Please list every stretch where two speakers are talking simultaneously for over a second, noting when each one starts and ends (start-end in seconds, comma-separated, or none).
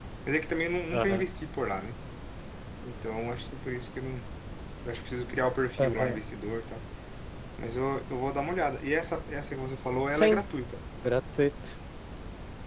none